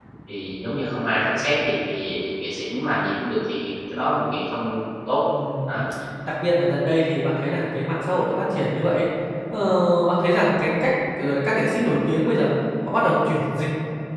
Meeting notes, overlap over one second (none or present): none